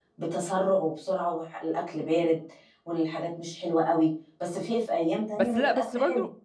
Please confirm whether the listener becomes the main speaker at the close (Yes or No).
Yes